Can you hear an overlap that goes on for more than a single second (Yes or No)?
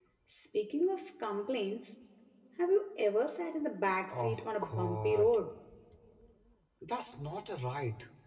Yes